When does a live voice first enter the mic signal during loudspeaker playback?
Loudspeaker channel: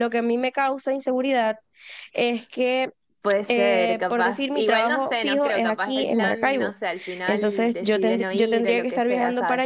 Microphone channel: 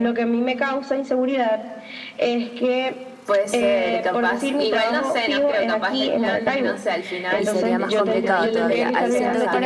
7.3 s

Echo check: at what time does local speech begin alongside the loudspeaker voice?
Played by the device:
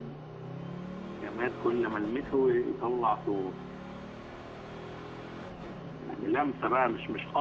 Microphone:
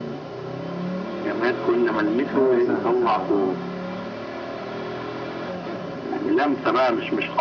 2.3 s

